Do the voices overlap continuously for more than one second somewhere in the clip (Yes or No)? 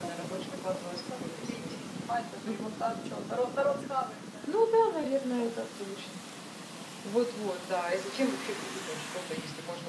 Yes